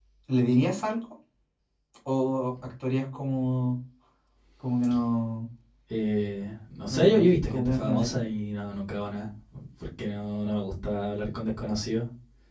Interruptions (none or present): present